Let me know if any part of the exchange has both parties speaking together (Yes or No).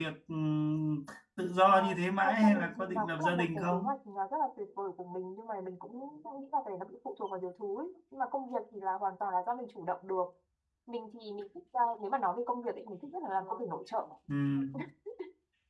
Yes